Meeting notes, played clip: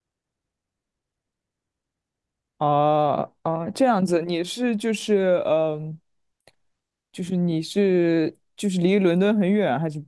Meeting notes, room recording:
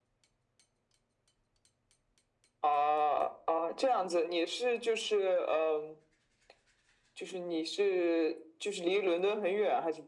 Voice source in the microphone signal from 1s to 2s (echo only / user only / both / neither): neither